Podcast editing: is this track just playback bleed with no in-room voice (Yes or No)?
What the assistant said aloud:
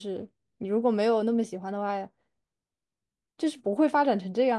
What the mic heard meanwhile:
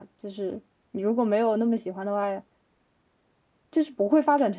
Yes